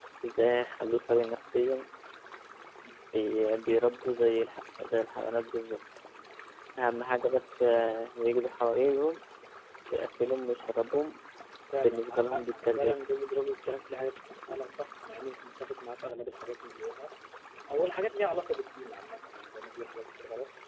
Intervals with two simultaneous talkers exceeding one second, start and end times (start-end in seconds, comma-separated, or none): 11.8-13.0